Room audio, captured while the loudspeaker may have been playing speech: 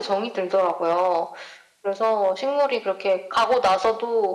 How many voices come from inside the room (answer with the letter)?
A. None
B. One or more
A